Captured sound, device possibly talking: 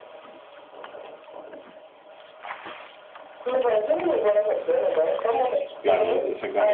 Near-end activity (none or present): present